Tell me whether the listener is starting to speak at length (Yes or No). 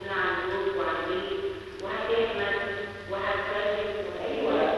Yes